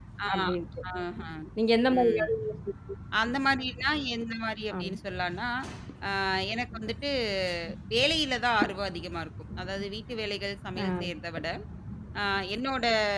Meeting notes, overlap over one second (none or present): none